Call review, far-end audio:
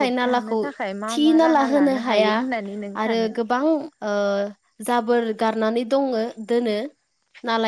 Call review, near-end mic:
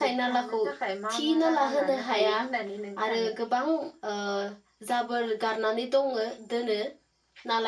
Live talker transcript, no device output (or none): none